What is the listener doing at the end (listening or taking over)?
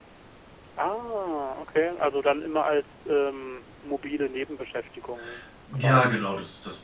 taking over